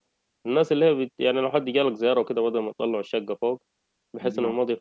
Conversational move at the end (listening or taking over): listening